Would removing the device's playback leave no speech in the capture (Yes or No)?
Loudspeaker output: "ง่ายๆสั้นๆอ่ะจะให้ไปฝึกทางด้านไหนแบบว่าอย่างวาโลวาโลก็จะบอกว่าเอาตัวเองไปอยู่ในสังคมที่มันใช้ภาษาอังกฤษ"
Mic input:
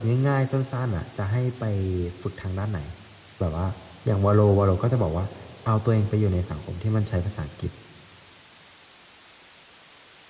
Yes